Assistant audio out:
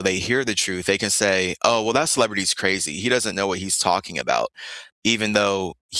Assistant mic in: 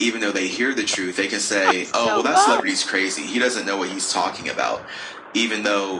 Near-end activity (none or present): present